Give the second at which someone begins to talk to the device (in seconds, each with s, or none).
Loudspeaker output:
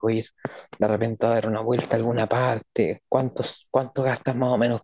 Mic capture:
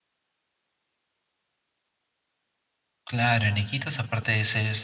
3.0 s